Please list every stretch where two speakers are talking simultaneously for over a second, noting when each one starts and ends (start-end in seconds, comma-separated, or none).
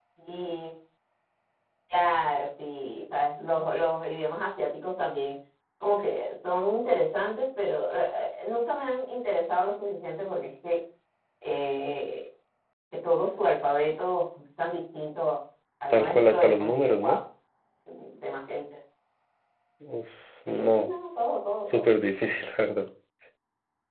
15.9-17.1